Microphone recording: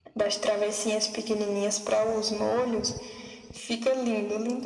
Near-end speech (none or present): none